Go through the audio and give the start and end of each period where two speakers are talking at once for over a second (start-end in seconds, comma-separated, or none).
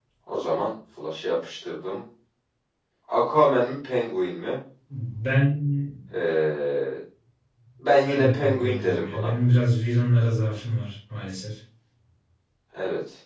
8.1-9.3